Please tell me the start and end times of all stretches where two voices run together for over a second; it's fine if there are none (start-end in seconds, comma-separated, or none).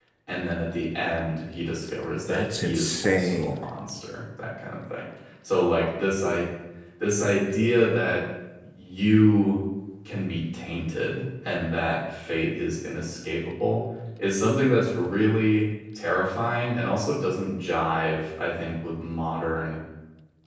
2.1-3.6